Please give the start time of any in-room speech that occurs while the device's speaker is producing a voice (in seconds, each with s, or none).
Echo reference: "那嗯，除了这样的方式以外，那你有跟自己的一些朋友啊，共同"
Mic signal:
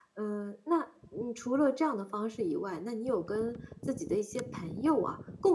none